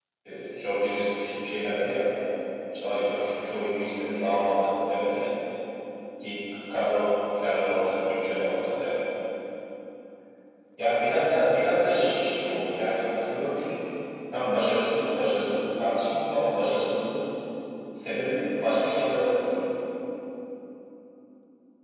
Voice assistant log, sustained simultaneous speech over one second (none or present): present